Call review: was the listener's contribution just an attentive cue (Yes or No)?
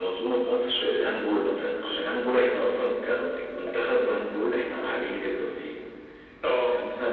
Yes